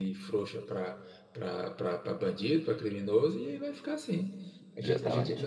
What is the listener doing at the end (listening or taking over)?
listening